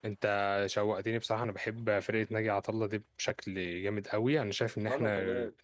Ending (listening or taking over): listening